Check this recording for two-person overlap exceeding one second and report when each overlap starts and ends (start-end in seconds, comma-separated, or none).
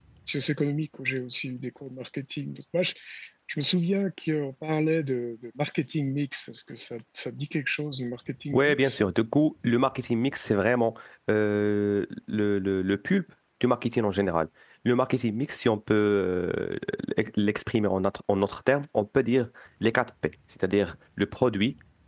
none